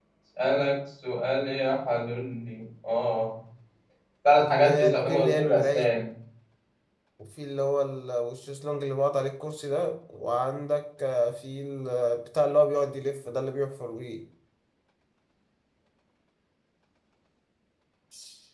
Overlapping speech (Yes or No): Yes